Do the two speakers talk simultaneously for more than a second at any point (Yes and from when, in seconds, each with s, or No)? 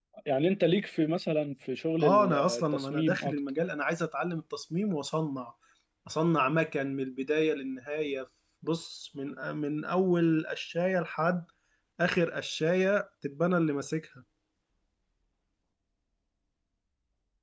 Yes, from 2.0 s